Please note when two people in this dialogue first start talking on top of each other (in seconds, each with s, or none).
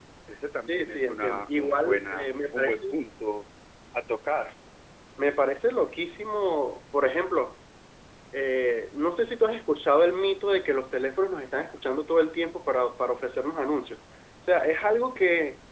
0.7 s